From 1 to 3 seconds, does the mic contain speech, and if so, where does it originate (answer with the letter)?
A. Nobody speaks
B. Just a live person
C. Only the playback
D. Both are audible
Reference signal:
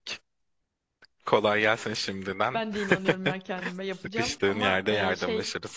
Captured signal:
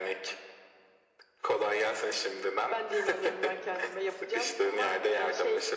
C